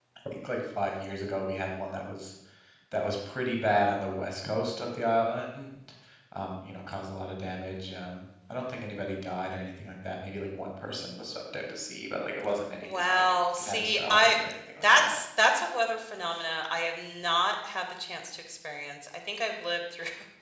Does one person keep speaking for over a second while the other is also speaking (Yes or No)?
Yes